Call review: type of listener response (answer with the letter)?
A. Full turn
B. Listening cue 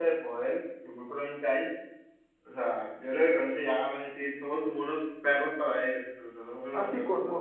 A